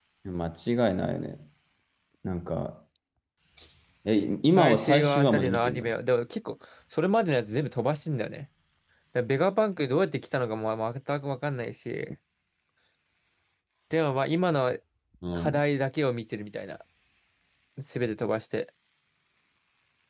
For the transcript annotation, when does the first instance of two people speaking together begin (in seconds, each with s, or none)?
4.5 s